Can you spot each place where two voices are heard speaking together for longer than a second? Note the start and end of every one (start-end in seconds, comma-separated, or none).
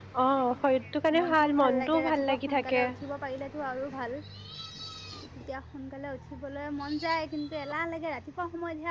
1.2-2.8